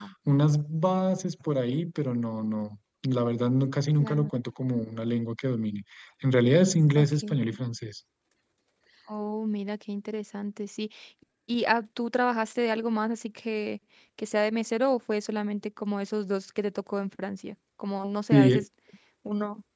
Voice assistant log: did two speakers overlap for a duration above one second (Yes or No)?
No